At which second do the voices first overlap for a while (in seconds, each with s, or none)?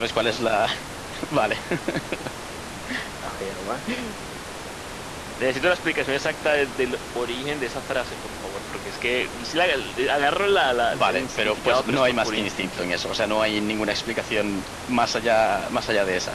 10.9 s